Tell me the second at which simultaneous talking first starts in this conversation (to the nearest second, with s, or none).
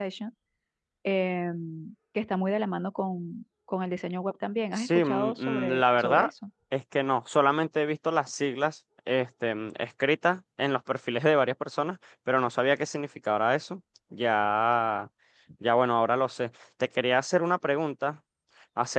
5 s